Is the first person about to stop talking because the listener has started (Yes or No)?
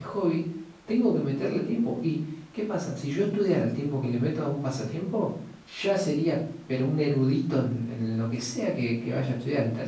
Yes